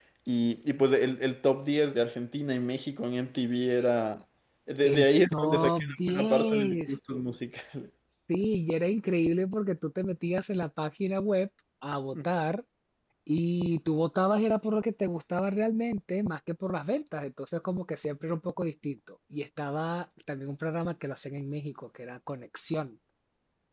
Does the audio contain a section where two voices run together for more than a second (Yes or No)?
Yes